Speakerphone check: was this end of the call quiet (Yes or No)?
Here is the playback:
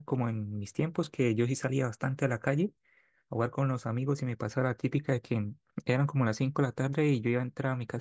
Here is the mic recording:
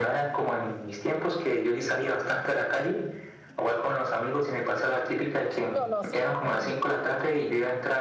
No